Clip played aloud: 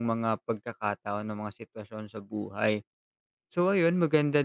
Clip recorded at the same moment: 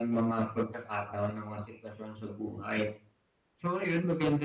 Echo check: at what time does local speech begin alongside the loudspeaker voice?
none

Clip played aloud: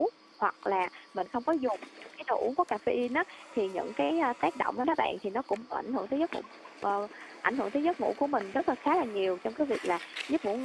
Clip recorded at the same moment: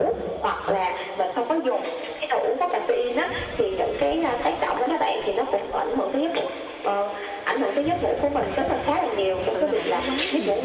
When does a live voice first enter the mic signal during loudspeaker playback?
9.4 s

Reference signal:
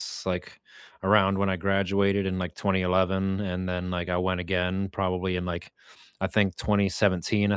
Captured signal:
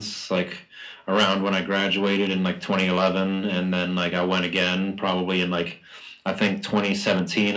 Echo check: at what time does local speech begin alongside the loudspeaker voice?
none

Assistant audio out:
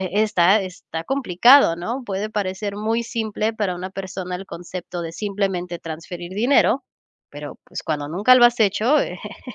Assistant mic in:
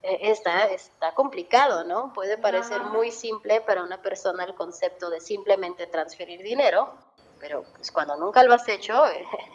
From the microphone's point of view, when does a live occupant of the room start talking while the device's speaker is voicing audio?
2.3 s

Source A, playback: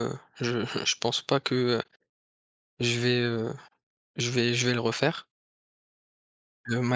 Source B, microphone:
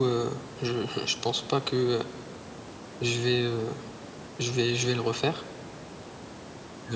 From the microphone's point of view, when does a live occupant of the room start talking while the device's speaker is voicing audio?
none

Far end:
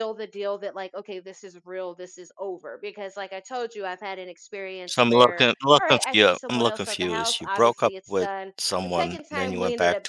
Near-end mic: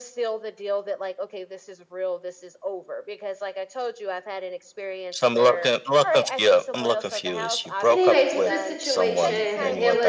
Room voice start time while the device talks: 7.9 s

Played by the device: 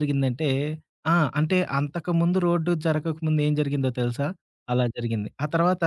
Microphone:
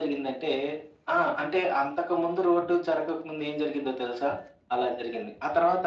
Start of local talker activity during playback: none

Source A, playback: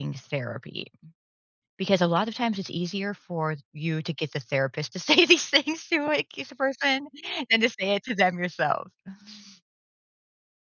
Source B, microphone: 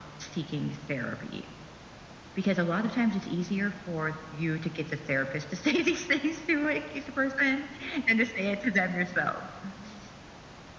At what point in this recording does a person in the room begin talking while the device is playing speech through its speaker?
none

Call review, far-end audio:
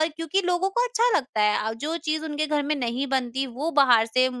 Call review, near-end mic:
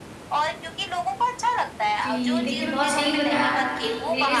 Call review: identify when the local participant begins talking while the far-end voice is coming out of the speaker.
2.0 s

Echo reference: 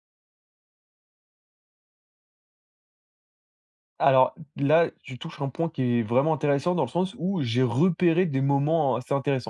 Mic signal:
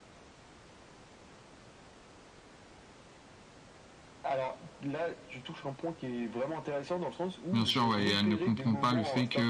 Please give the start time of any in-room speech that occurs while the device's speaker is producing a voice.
7.5 s

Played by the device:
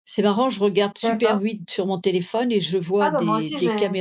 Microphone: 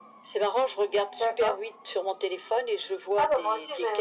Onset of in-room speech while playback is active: none

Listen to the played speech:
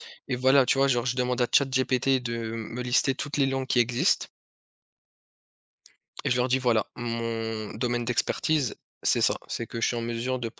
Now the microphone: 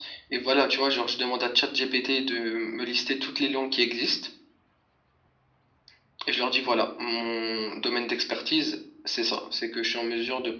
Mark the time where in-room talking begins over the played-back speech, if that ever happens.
none

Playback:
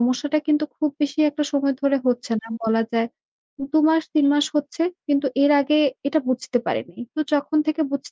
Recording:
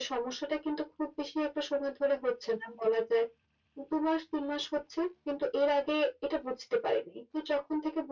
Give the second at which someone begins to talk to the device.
none

